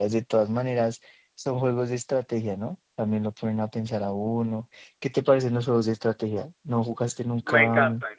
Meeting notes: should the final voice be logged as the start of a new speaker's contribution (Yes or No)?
Yes